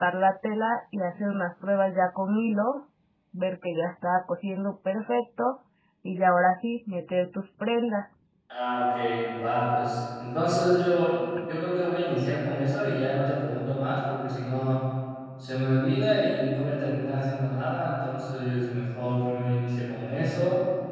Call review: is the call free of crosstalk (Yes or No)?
Yes